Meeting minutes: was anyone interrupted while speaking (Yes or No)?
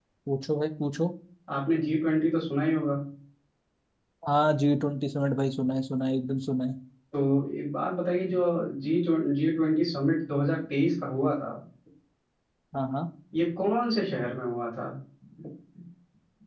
No